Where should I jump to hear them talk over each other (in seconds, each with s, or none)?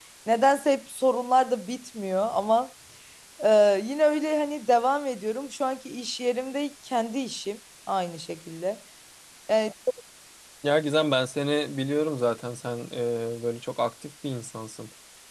none